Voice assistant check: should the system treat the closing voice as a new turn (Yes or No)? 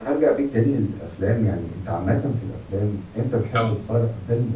No